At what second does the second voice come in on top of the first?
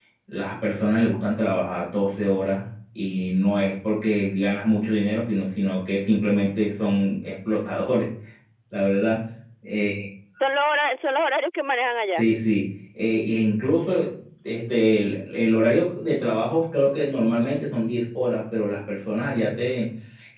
none

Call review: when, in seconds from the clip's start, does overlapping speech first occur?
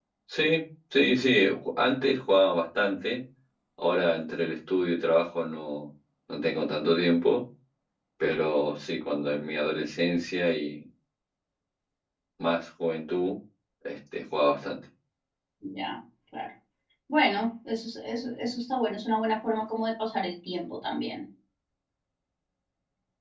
none

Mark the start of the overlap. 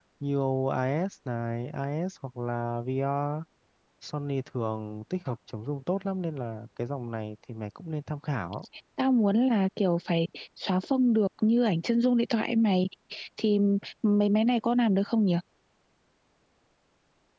none

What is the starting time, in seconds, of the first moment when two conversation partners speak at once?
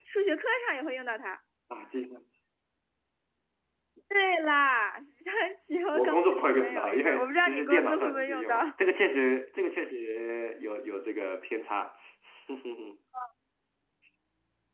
5.9 s

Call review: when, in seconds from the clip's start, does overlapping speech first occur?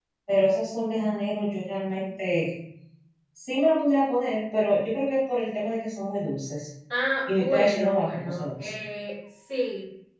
7.3 s

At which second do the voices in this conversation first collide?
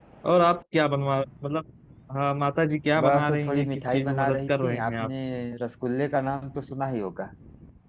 3.0 s

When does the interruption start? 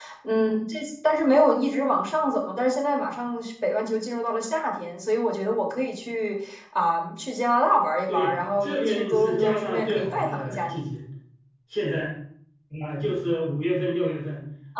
8.1 s

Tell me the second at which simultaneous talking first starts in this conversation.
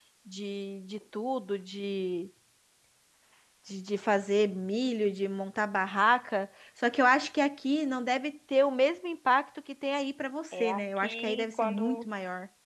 10.5 s

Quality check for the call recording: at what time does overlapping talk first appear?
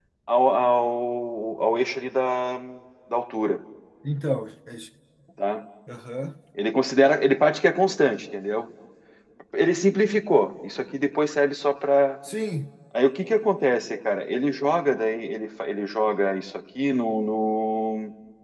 none

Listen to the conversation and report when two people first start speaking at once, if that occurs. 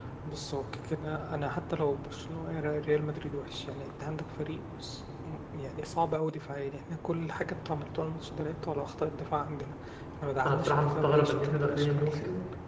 10.4 s

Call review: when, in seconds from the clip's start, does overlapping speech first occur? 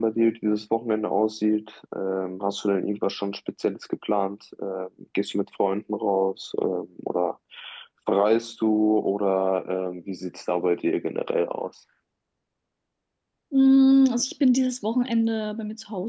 none

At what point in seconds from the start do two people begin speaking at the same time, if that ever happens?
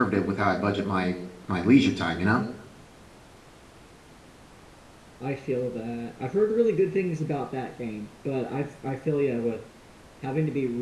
none

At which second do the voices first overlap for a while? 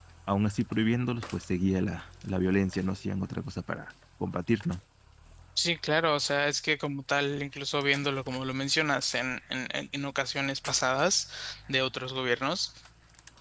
none

